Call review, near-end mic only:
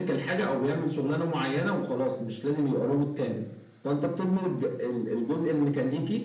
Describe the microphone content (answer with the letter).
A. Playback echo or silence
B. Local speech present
A